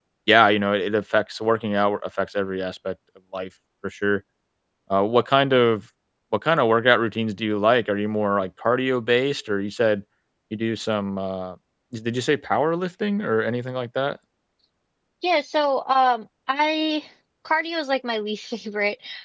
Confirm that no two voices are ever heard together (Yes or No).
Yes